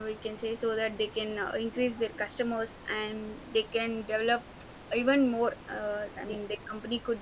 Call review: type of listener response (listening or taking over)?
listening